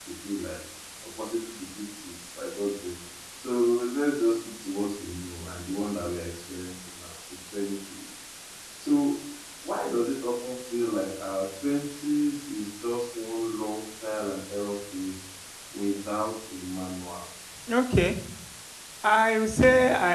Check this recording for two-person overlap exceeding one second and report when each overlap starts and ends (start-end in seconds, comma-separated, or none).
none